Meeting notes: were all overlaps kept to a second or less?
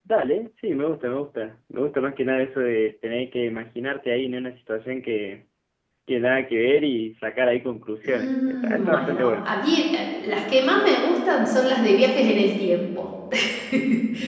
No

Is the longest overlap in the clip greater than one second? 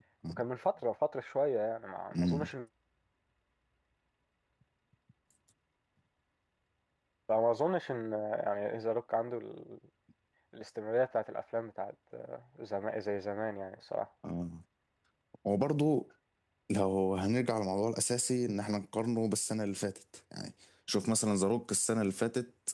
No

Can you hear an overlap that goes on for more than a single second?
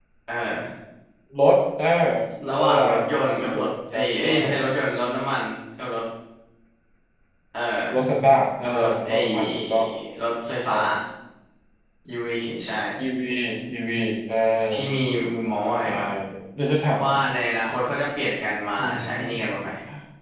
Yes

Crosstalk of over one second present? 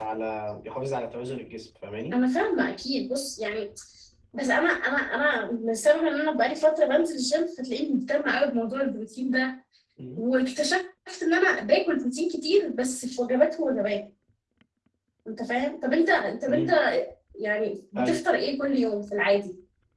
No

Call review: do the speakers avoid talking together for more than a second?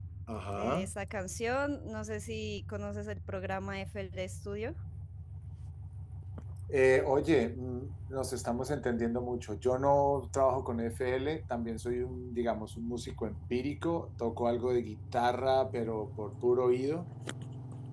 Yes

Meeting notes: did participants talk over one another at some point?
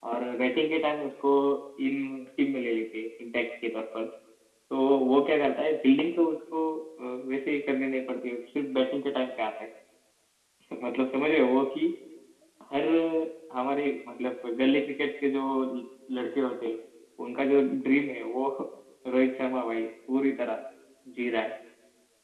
No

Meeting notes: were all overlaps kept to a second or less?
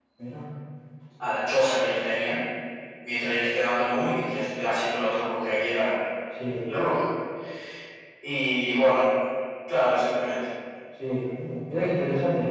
Yes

